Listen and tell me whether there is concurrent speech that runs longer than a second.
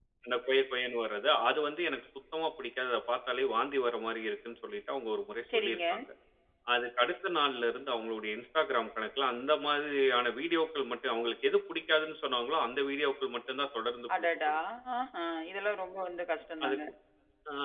No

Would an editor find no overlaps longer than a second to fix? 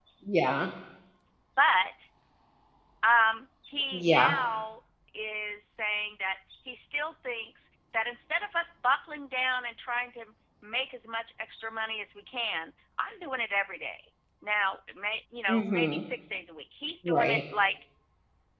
Yes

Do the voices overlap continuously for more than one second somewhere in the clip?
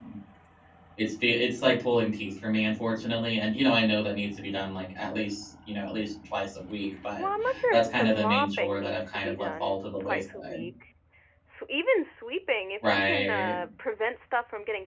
Yes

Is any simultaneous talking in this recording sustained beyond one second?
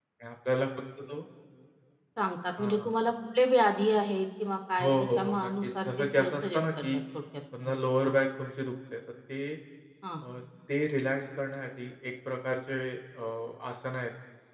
Yes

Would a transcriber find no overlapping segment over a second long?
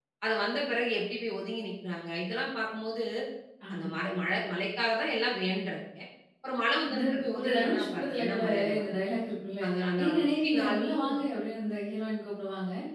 No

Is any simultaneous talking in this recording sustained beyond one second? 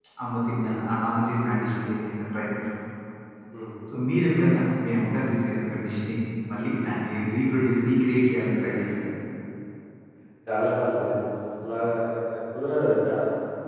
No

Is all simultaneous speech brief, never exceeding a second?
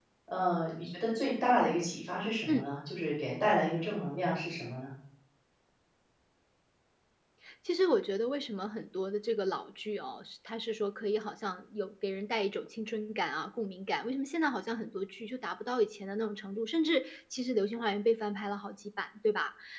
Yes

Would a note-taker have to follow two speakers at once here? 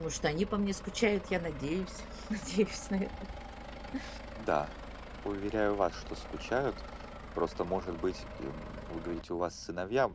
No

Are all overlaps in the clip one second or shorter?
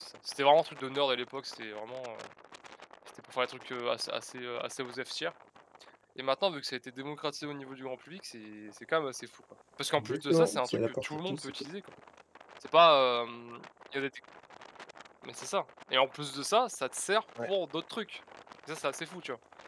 No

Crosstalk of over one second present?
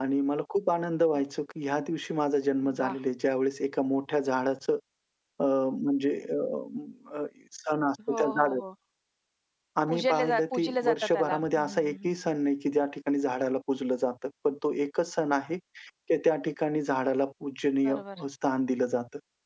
Yes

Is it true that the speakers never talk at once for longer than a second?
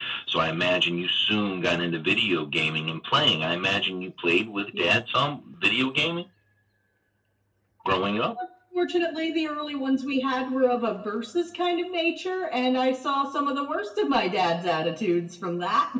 Yes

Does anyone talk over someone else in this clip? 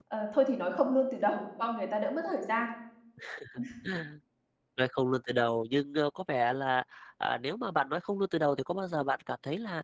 No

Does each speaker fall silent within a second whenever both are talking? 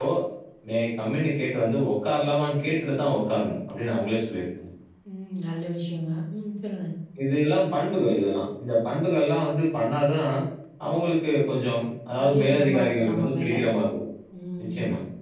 No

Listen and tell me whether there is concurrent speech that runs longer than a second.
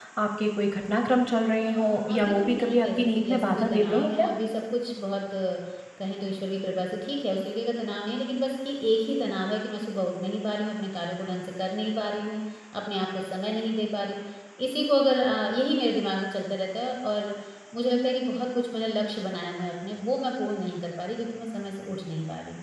Yes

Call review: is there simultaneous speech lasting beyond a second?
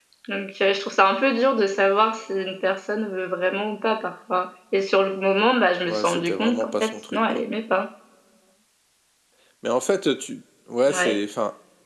Yes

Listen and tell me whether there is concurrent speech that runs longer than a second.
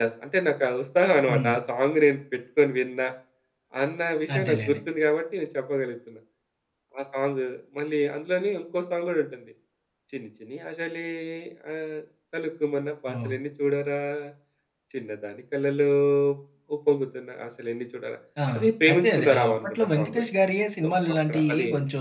Yes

